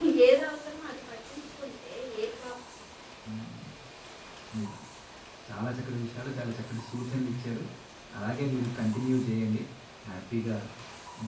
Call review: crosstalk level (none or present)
none